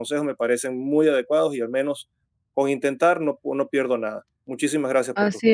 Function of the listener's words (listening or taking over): taking over